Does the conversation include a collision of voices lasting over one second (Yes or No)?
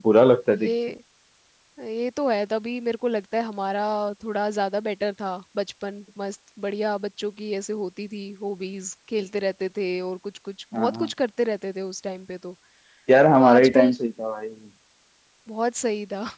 No